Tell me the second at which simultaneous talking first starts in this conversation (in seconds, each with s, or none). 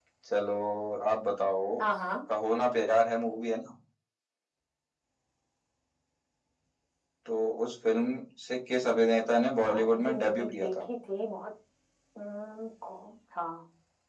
9.6 s